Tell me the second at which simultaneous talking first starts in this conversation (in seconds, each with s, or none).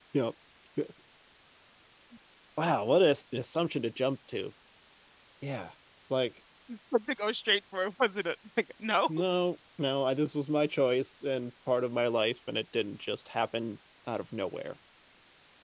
none